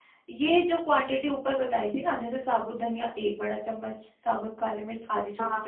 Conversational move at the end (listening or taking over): listening